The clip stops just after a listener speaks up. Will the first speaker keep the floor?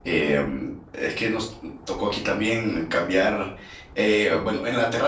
Yes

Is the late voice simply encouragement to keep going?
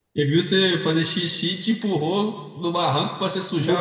No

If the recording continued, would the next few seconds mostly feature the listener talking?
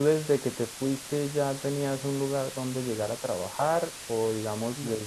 No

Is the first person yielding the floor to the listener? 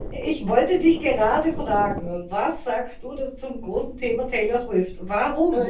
Yes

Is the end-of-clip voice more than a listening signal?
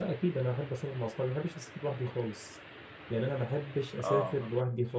No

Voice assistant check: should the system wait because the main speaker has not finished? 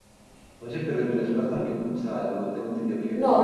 No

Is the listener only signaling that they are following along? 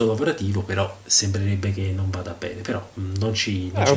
No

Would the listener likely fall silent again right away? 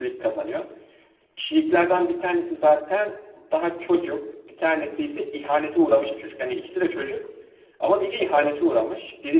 Yes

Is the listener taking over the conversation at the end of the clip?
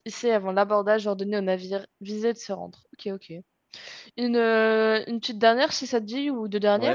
Yes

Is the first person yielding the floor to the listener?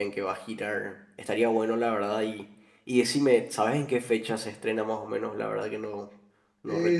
Yes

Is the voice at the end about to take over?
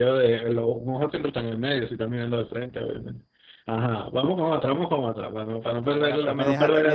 Yes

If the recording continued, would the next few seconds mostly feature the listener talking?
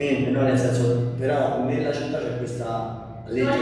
Yes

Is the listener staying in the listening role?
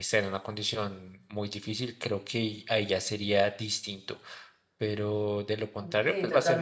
Yes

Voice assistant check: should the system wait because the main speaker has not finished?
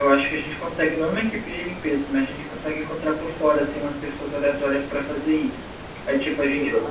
Yes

